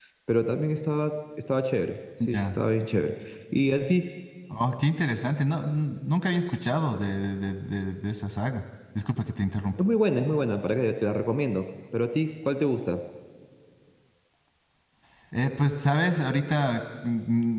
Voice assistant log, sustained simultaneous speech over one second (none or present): none